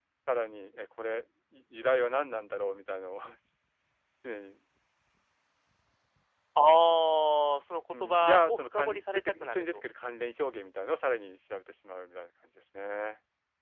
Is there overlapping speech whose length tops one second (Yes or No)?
Yes